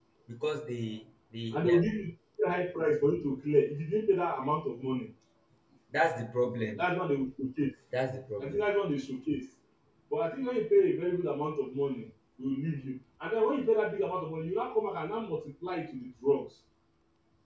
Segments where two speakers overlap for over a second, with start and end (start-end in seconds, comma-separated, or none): none